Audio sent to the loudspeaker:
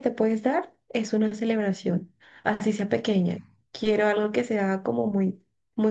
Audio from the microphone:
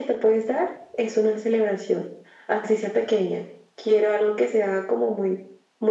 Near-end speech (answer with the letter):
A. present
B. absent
B